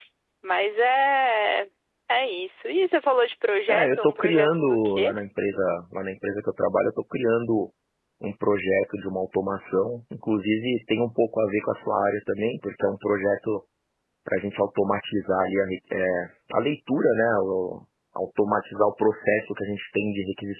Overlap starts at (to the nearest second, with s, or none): 4 s